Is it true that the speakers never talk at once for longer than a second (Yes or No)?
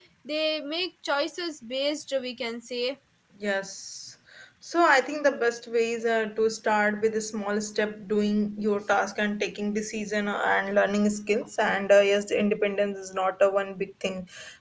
Yes